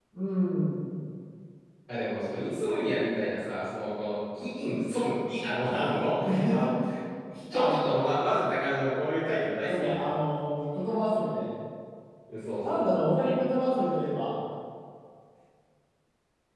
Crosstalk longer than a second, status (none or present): none